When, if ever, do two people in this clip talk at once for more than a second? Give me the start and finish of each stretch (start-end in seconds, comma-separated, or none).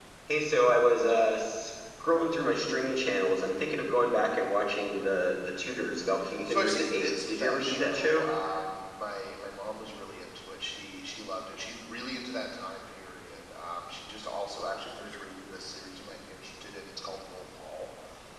6.4-8.3